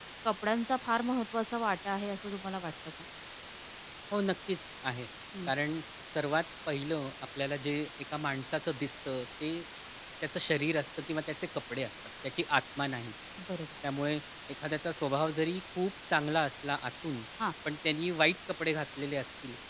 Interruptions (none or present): none